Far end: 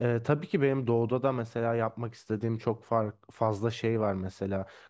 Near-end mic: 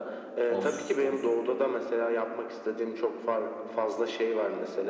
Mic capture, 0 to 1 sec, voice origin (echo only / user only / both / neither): both